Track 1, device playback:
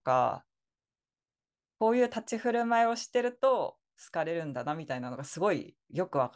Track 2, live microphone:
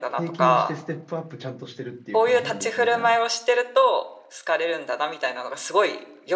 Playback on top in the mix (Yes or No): Yes